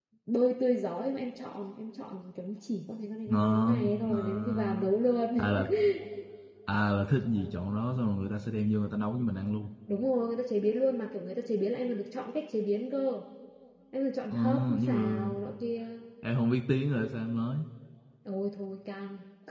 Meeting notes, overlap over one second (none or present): present